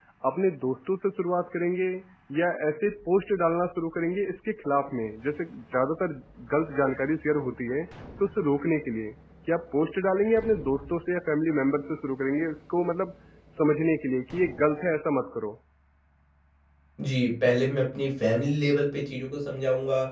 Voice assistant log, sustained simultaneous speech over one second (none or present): none